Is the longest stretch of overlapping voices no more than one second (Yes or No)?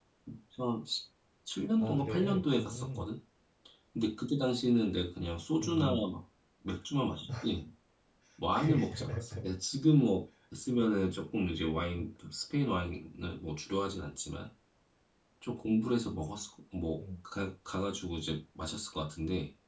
No